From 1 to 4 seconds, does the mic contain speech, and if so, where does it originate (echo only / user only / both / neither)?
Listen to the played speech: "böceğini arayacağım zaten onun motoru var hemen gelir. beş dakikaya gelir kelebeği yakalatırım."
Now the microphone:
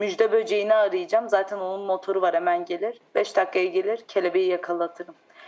echo only